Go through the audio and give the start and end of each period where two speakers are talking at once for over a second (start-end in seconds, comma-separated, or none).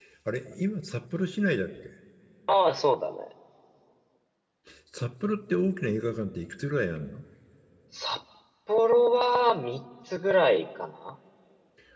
none